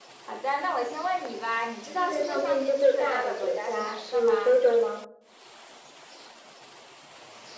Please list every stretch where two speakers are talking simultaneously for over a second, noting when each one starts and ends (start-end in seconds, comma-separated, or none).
2.0-4.6